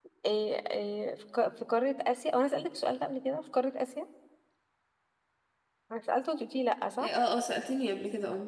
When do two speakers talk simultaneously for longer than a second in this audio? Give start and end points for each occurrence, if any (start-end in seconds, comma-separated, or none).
none